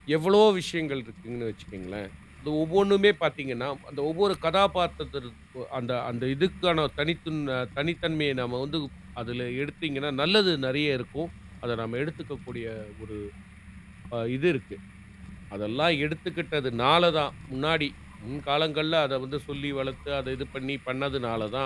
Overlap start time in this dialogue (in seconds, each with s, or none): none